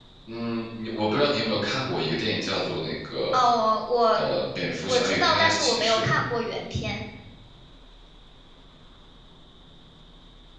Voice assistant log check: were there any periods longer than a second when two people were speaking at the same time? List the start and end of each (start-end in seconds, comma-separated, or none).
4.9-6.1